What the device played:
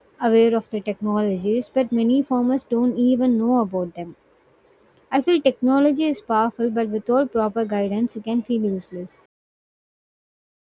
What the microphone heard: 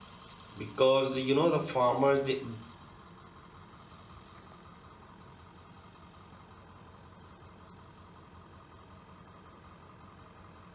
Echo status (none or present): none